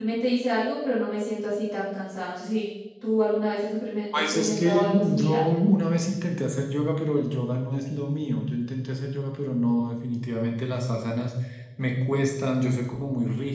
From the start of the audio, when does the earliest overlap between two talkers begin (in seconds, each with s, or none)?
4.1 s